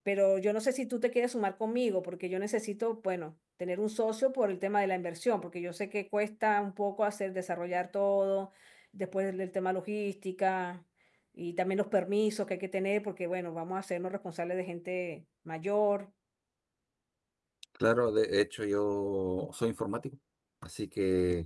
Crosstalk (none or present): none